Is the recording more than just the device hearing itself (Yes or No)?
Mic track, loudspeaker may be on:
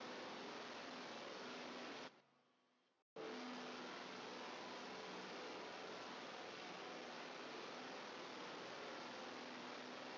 No